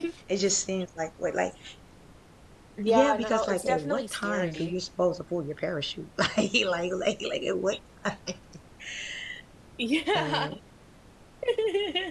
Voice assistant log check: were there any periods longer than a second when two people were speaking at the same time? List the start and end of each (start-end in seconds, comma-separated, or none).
2.9-4.7